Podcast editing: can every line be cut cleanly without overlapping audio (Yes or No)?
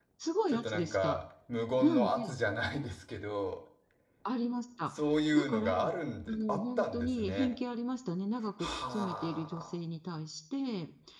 No